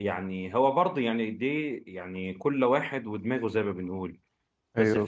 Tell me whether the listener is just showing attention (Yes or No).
Yes